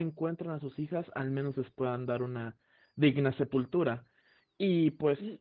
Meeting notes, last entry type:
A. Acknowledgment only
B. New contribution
B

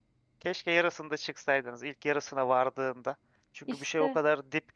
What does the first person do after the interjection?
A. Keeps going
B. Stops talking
A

